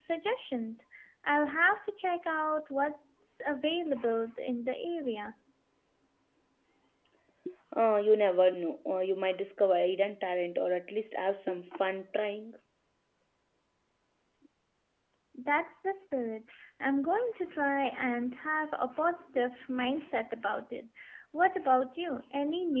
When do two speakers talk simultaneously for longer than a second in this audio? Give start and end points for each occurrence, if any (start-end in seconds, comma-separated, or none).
none